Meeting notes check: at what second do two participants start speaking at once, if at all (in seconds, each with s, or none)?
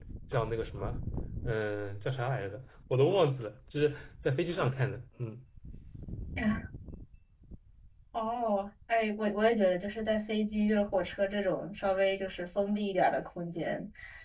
none